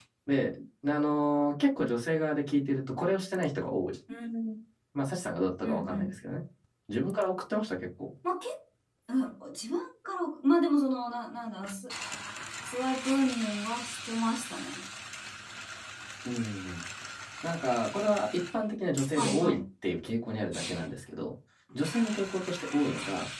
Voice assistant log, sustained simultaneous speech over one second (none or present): none